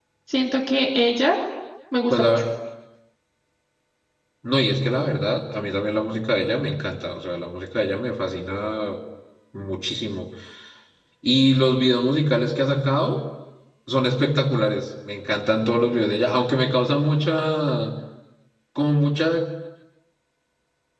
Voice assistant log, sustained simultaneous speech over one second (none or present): none